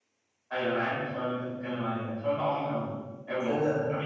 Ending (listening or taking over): listening